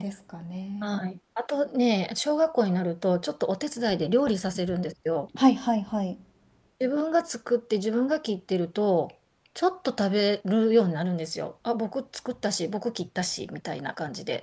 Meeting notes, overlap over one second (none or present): none